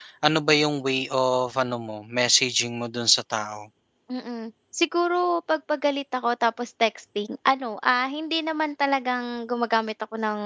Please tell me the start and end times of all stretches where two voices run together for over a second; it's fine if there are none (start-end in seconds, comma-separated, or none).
none